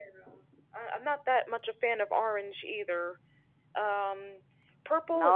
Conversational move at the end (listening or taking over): taking over